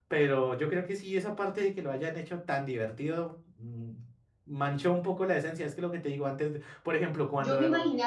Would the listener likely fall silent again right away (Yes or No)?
No